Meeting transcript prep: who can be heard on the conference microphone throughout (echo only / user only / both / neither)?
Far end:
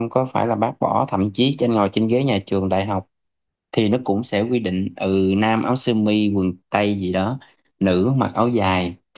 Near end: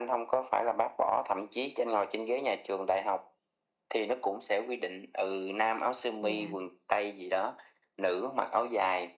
both